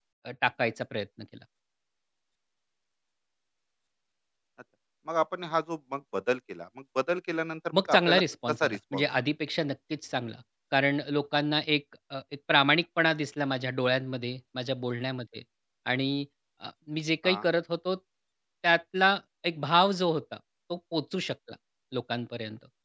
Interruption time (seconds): 8 s

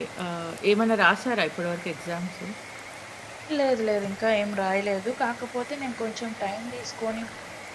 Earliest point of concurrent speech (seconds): none

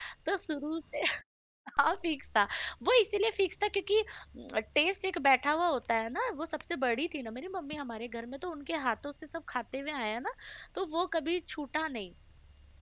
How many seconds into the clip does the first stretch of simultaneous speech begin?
none

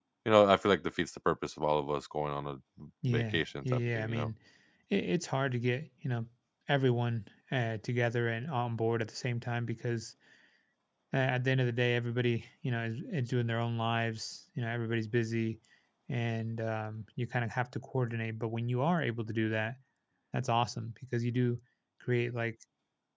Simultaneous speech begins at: 3 s

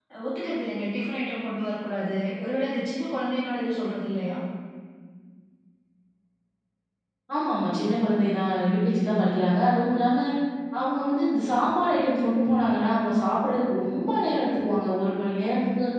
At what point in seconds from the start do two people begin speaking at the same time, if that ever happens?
none

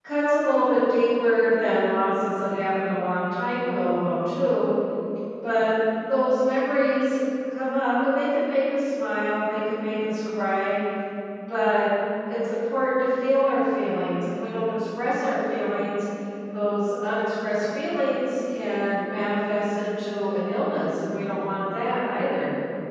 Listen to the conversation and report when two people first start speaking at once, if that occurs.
none

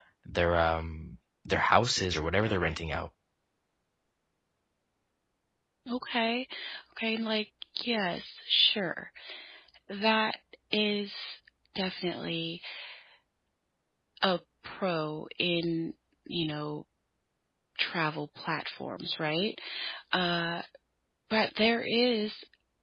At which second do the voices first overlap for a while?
none

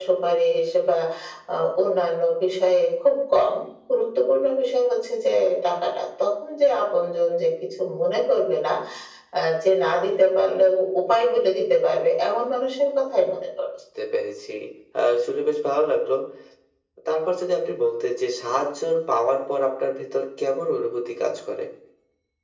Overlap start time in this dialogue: none

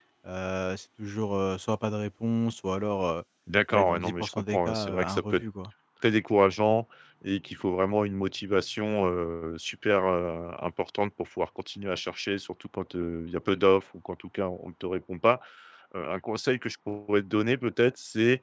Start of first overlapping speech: 4 s

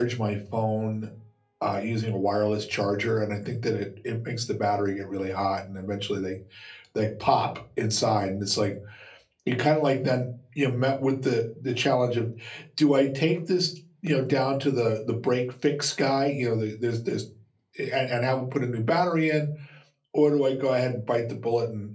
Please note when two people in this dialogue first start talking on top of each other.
none

